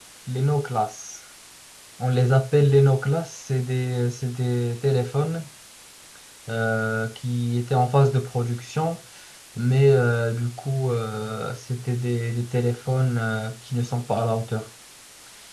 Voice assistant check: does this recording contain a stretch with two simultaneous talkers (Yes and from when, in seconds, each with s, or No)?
No